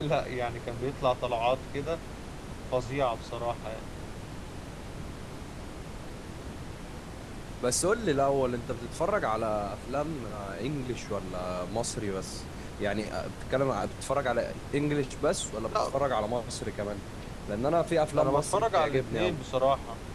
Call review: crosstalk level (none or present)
present